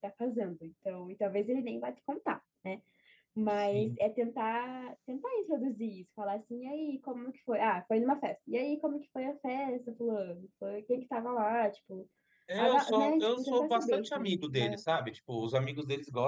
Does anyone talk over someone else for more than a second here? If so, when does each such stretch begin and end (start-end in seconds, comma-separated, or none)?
12.6-14.8